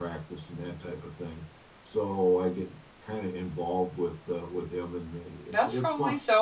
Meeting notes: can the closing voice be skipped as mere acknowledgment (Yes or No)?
No